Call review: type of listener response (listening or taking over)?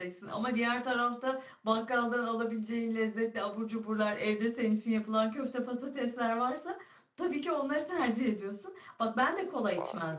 listening